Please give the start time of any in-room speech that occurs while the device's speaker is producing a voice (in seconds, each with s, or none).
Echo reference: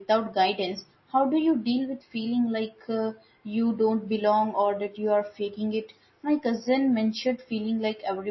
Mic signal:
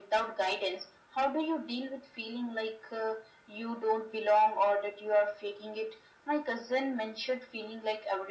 none